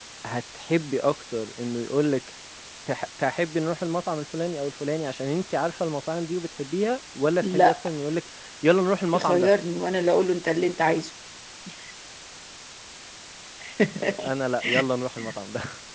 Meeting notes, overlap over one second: none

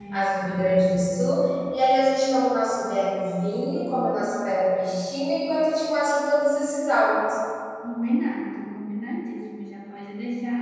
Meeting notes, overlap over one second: none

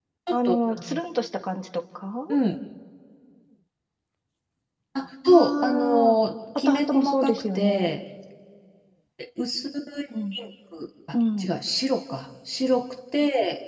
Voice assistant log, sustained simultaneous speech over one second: present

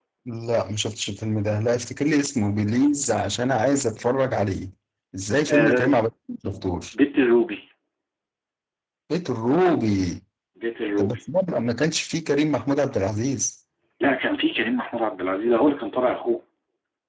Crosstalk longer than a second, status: none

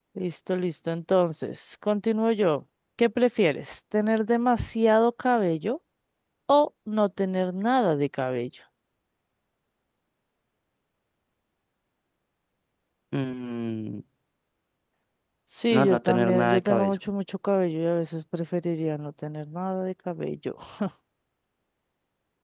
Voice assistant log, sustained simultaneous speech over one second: present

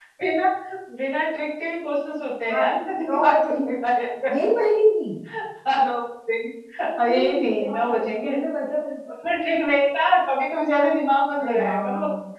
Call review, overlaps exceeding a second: present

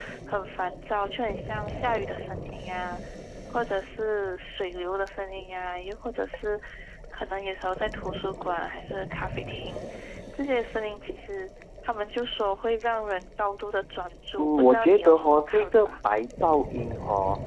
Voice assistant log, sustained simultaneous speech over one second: present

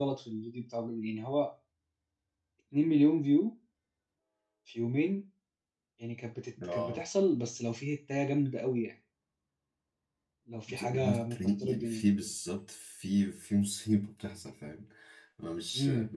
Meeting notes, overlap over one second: present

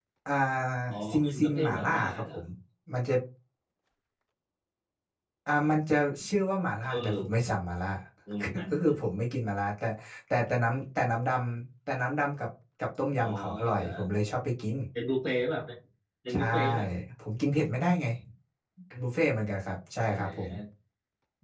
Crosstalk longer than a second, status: present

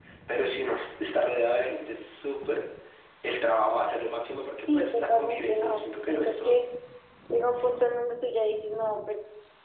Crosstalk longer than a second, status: present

